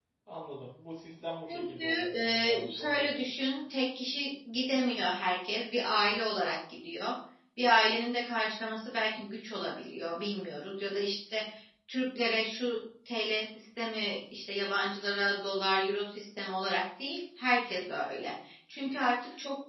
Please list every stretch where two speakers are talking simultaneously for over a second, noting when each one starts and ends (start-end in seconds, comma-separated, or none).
1.5-3.1